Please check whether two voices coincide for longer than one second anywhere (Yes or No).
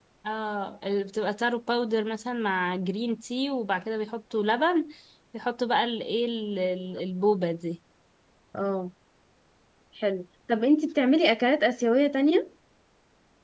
No